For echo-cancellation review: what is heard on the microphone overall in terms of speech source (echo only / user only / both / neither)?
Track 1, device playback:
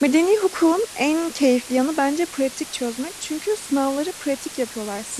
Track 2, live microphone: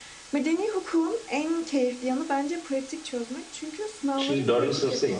both